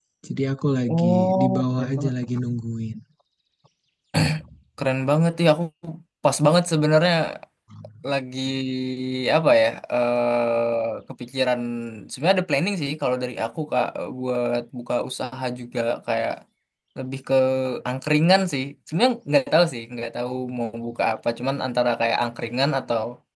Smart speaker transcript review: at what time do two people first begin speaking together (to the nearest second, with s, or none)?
1 s